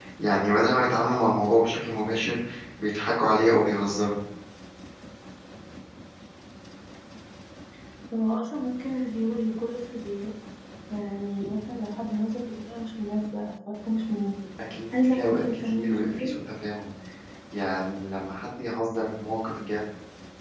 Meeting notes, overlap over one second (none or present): present